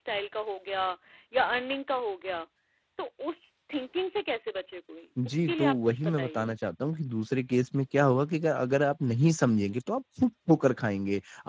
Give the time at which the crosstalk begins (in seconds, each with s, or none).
5.2 s